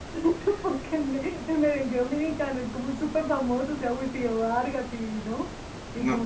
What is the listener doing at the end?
taking over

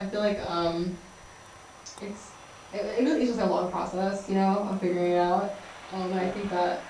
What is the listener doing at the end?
listening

